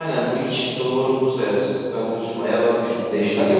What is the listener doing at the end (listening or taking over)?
taking over